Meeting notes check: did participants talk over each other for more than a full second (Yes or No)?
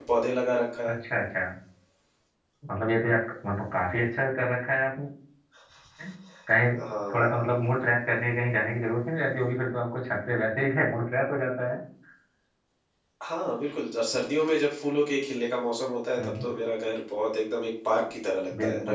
No